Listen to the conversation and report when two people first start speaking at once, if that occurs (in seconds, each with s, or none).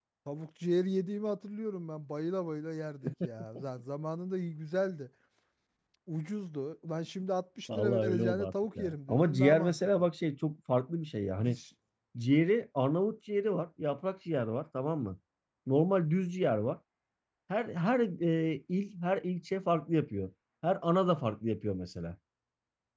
7.7 s